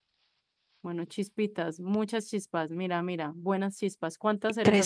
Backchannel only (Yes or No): No